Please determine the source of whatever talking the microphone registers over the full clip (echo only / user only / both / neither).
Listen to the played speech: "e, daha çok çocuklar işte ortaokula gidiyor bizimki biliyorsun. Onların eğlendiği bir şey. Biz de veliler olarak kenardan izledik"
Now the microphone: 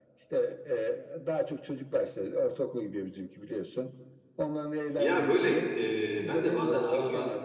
both